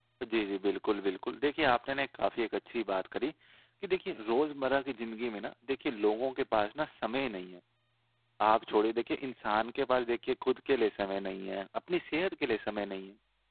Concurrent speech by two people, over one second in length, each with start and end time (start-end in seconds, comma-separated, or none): none